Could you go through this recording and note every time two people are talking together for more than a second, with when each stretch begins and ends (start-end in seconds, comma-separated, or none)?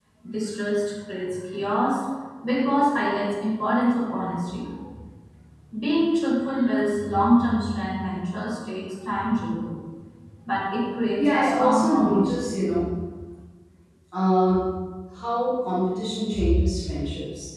11.2-12.5